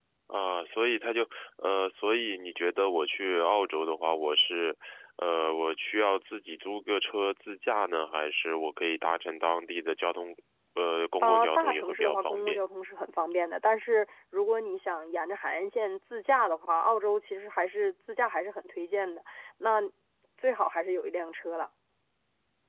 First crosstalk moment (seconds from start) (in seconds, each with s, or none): 11.2 s